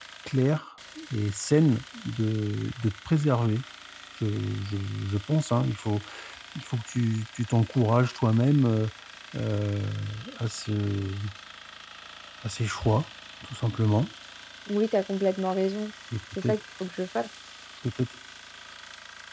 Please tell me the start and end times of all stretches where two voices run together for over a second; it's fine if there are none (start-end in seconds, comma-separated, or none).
none